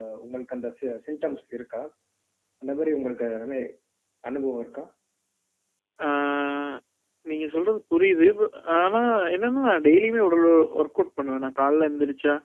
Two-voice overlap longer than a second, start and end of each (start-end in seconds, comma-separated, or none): none